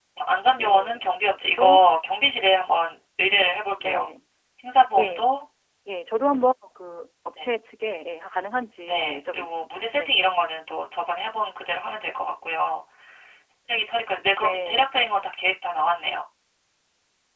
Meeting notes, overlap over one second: present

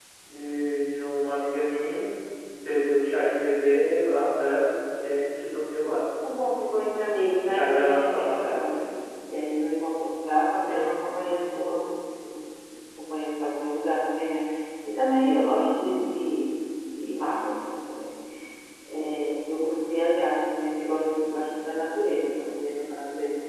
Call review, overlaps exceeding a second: present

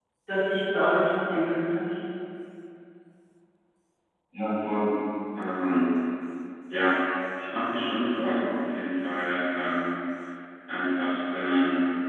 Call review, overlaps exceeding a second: none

